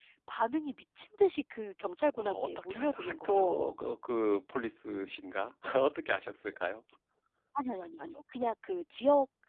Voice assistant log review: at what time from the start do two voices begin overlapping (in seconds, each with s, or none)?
2.1 s